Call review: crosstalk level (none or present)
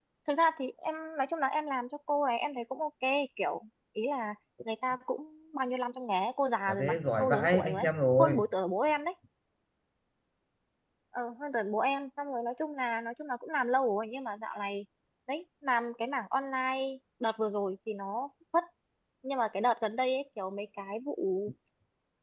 present